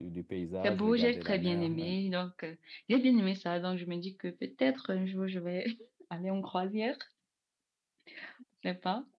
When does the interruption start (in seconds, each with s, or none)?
0.6 s